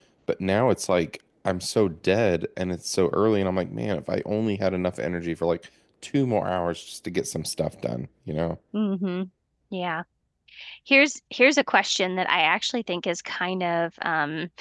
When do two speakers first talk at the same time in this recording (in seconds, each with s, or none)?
none